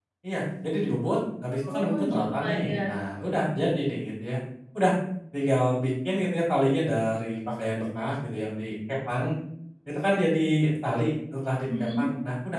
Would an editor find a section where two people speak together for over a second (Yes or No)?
Yes